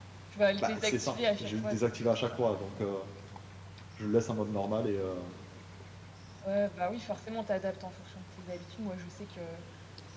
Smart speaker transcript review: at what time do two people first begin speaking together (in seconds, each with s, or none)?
0.6 s